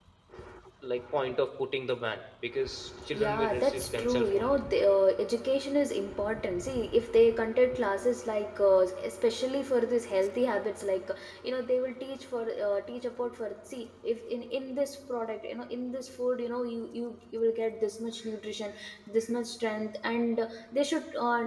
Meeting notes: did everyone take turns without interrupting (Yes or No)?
No